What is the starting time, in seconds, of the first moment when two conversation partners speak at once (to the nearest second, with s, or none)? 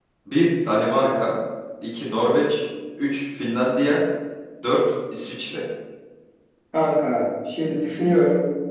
none